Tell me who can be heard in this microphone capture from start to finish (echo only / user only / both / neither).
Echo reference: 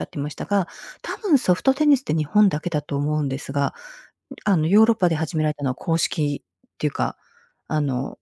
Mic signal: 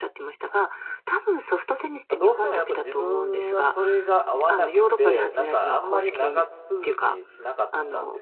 both